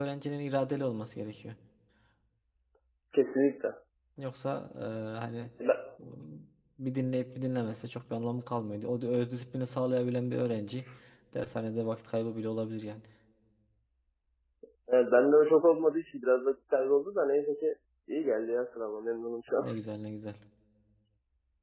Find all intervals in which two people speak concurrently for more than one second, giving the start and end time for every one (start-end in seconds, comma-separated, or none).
none